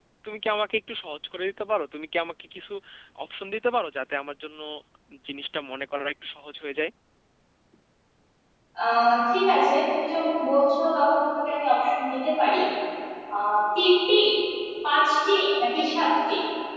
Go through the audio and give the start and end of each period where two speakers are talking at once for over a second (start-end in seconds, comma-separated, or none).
none